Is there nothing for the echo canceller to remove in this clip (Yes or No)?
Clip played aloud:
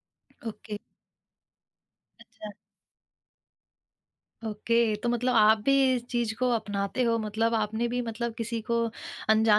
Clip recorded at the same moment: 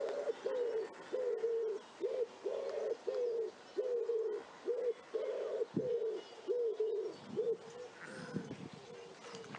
Yes